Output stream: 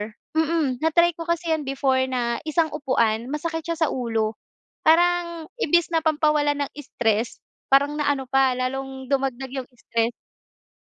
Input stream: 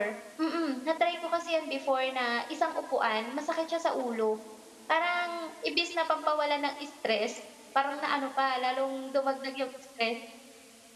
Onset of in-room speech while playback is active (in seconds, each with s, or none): none